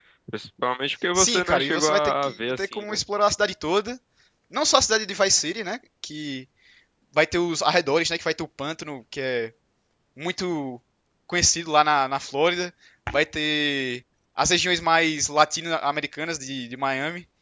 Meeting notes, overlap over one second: present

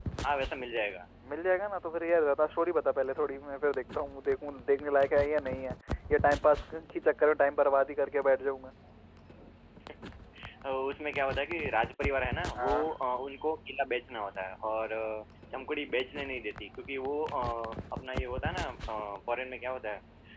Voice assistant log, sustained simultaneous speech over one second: none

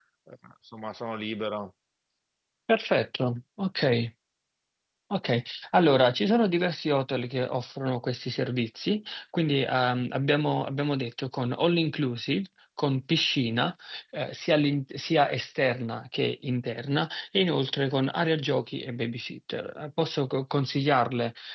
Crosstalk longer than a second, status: none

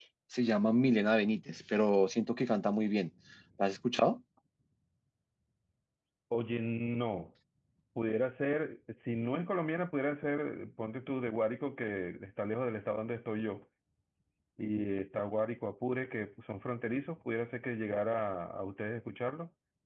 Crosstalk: none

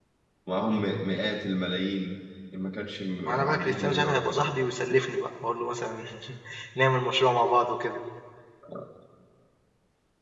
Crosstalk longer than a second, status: present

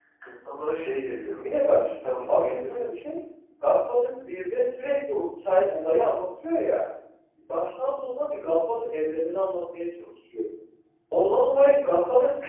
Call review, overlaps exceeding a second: none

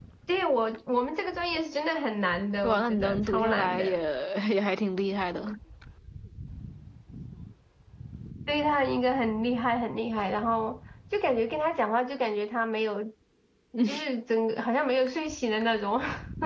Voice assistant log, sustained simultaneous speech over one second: present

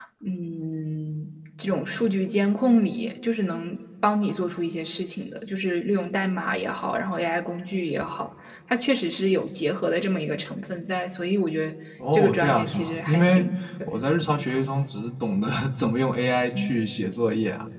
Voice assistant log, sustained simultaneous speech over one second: present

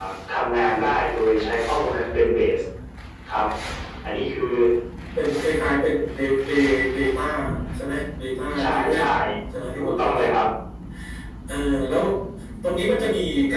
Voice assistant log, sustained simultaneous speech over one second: none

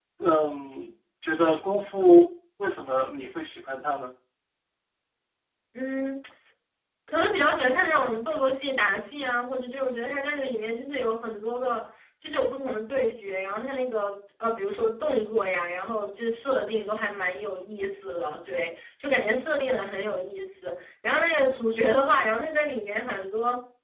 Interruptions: none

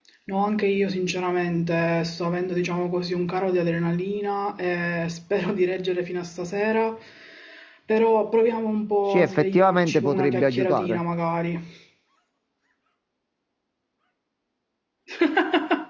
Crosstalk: present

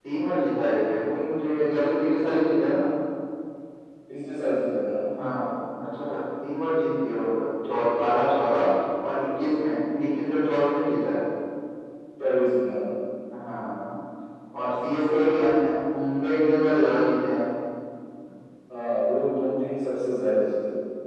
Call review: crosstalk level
none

